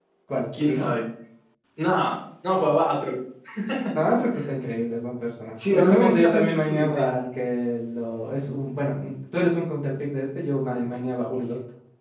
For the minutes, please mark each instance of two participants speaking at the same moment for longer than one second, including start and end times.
5.7-7.2

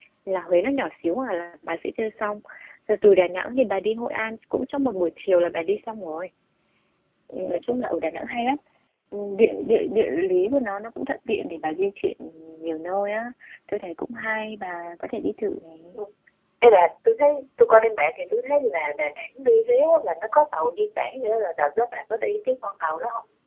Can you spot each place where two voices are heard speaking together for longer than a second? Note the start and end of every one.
none

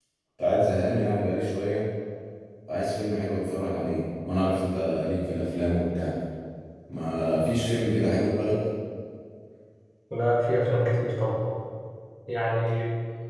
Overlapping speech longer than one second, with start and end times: none

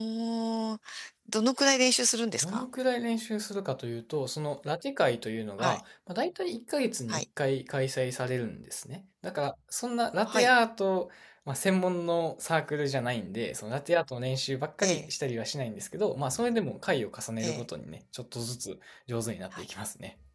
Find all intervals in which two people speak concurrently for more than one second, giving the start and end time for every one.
none

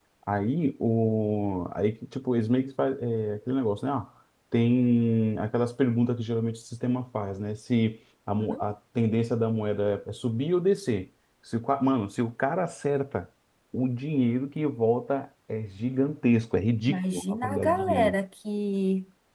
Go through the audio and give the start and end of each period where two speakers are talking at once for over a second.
16.9-18.2

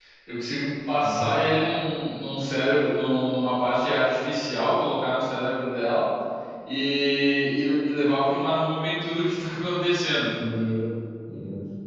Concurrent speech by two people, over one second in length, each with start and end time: none

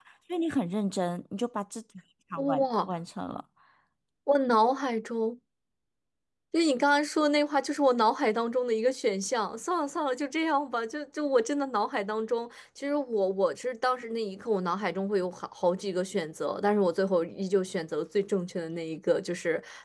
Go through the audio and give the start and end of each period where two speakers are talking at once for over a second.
none

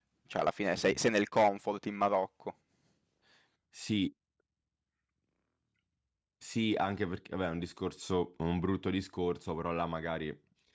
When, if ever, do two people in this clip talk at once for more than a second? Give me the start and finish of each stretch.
none

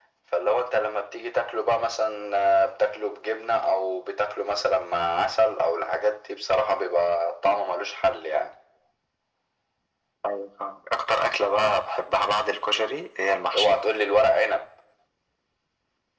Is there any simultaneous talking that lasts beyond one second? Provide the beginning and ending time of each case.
none

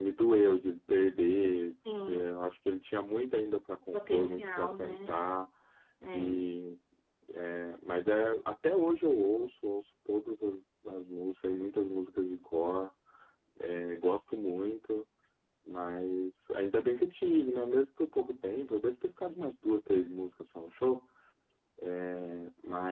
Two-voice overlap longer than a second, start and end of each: 3.9-5.2

